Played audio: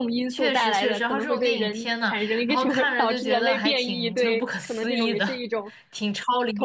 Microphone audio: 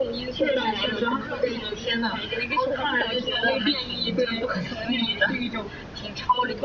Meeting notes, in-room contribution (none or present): none